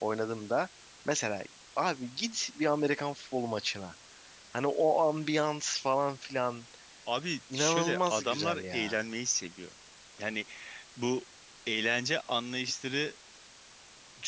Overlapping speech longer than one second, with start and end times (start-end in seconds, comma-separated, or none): 7.5-9.0